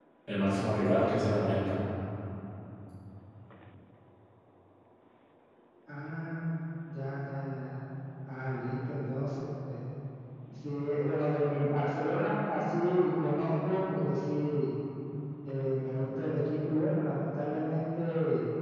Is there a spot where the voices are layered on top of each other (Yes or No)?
No